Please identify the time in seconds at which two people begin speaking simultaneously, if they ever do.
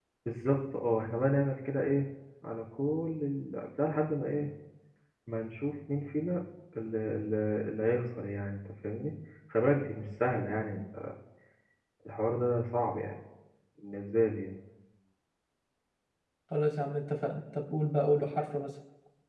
none

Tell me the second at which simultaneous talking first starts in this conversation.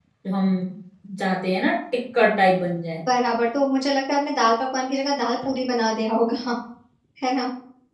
none

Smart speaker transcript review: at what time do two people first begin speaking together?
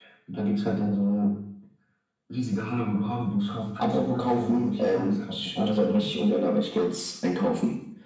3.8 s

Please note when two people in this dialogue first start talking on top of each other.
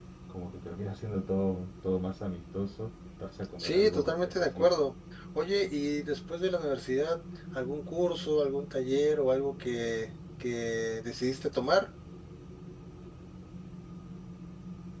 3.6 s

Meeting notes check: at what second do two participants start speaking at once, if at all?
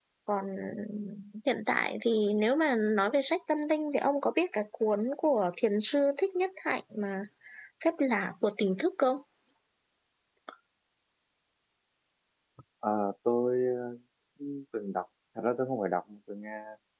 none

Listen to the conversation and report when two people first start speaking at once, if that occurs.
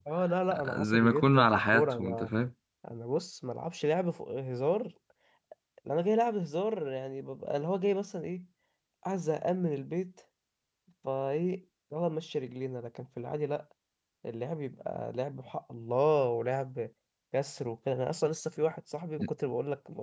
0.5 s

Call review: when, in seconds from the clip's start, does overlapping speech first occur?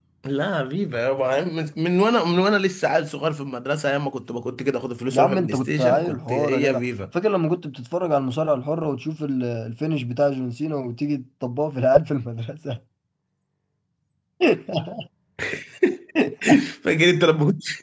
5.1 s

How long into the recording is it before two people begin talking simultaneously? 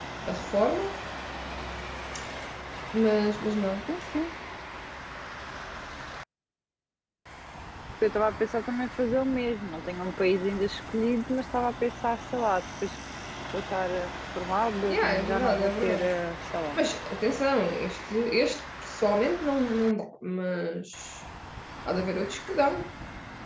14.9 s

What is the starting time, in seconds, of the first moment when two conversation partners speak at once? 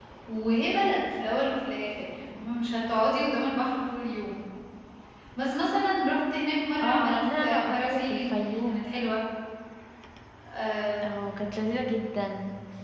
6.8 s

